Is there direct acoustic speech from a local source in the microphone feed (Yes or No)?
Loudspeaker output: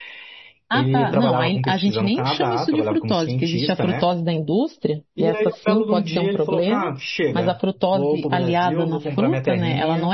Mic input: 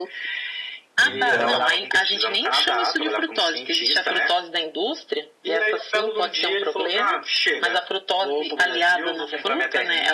Yes